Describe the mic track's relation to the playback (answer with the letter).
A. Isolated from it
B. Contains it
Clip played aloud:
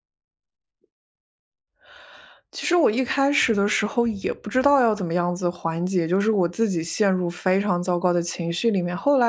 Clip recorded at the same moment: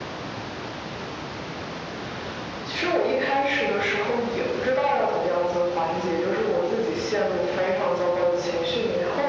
B